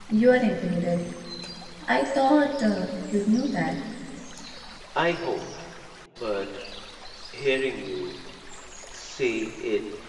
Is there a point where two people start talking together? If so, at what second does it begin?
none

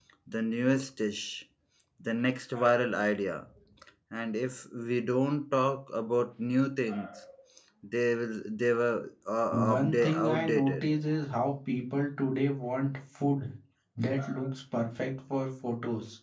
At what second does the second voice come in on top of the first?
10 s

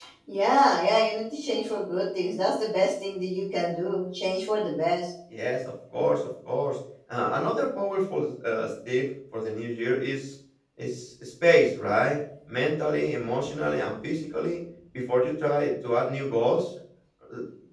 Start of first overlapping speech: none

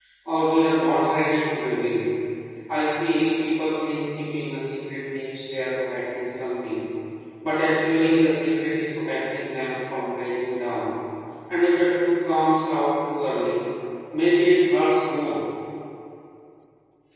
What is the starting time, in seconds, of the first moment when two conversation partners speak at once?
none

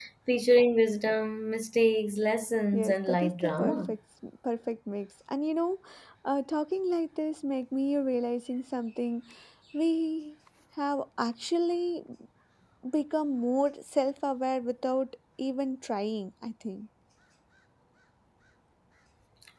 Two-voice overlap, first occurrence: 3 s

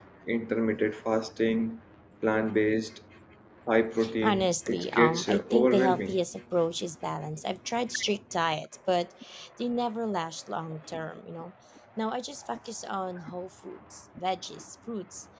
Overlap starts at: 4 s

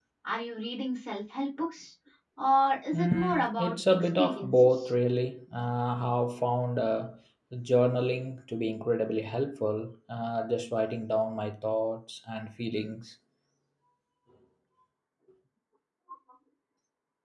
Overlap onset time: 3 s

